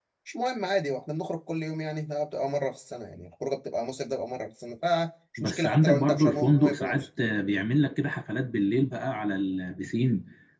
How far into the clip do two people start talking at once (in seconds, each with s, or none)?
5.4 s